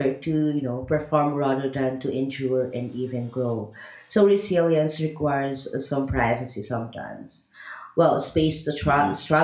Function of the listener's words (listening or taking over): listening